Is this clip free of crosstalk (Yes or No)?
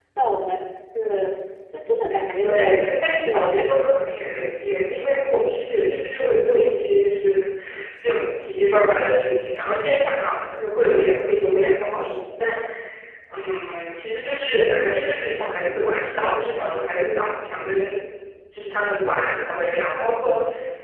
No